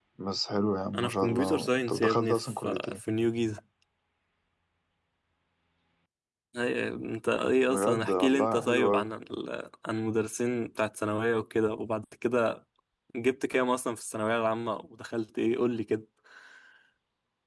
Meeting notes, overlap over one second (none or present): present